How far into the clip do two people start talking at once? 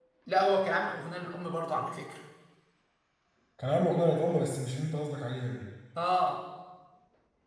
none

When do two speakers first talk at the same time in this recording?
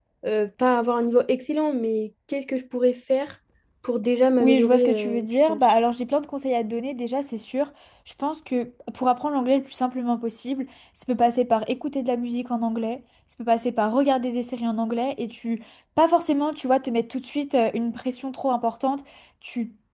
4.4 s

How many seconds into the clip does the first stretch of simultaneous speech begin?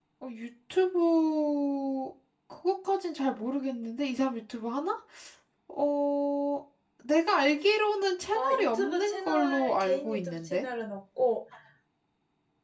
8.3 s

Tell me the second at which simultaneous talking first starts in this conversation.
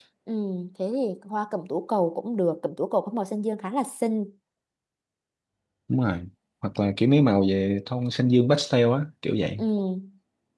none

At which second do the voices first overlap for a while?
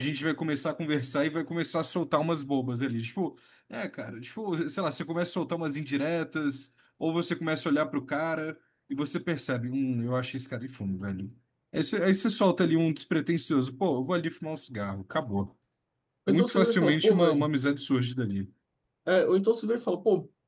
16.3 s

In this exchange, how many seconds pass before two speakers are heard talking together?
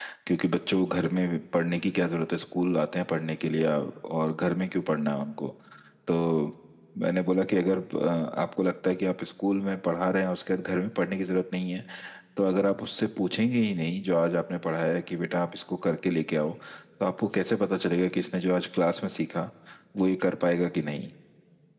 none

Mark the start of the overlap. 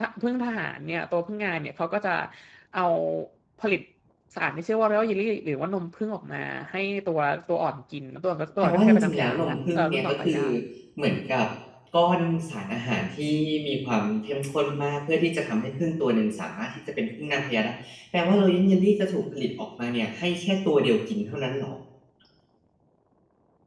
8.6 s

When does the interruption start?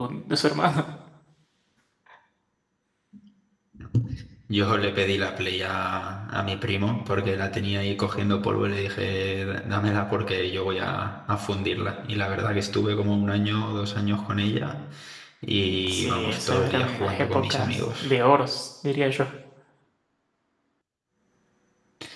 15.9 s

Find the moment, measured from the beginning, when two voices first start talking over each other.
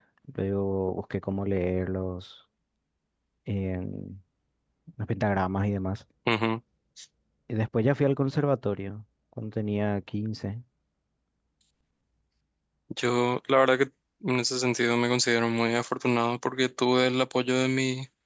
none

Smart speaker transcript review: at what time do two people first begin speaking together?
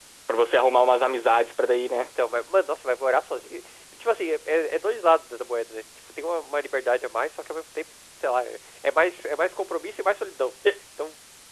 none

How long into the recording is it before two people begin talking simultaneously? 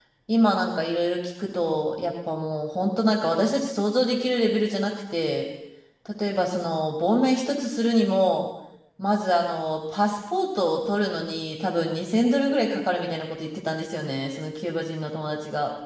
none

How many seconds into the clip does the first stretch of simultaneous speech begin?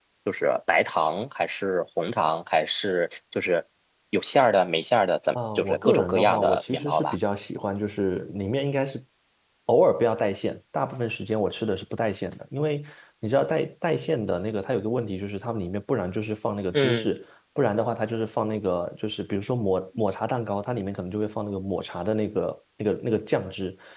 5.5 s

